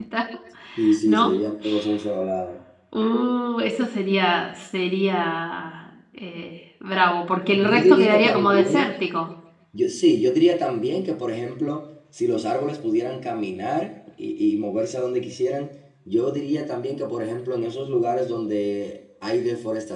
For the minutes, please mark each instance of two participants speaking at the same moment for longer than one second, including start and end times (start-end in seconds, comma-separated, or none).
7.6-8.9